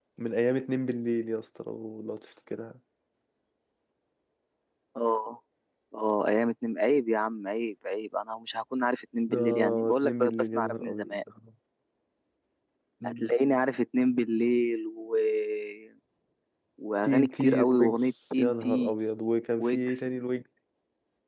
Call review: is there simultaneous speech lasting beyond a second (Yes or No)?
Yes